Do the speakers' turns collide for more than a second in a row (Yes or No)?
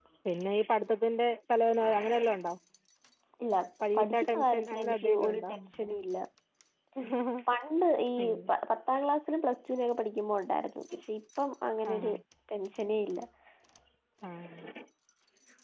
Yes